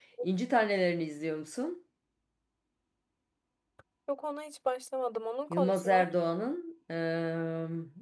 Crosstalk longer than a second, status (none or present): none